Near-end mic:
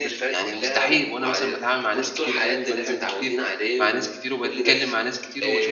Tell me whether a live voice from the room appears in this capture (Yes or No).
Yes